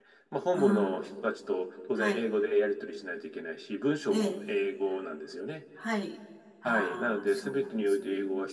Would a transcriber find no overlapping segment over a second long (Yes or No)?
No